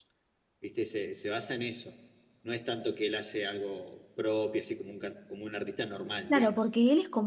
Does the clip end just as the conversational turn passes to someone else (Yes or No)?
Yes